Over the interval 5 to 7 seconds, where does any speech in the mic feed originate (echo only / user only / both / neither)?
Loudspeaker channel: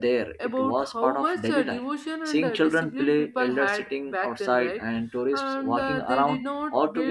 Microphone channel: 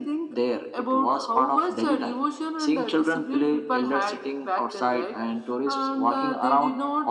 echo only